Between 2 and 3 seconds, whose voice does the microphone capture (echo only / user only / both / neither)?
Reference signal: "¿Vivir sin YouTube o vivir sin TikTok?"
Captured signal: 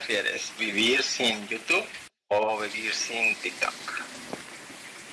echo only